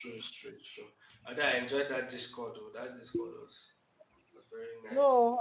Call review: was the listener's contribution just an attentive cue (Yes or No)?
No